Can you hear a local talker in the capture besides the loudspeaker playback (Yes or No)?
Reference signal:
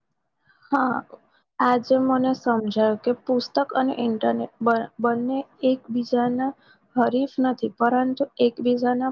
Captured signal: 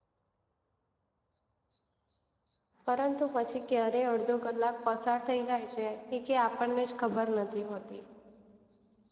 Yes